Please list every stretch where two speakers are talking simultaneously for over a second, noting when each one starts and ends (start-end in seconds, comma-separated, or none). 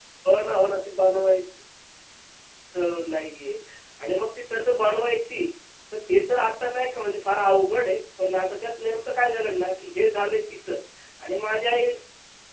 none